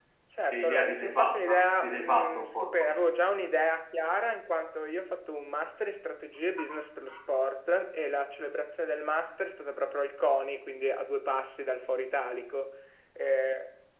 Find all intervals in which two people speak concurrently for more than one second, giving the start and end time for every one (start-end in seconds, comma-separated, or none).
0.5-2.7